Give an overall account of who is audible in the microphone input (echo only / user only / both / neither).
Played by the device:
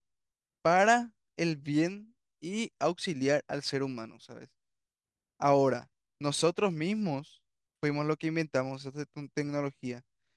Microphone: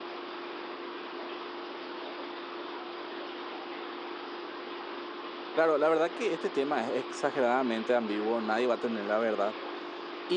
user only